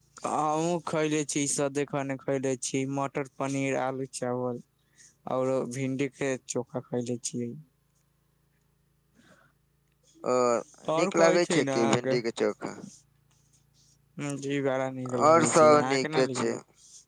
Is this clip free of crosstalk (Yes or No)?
No